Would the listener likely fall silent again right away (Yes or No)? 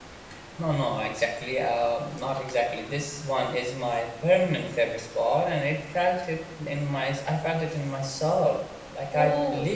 Yes